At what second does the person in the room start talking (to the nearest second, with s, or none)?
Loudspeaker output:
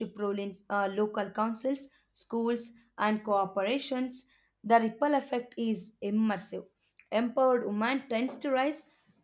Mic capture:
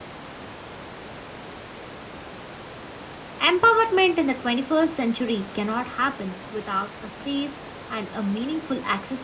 3 s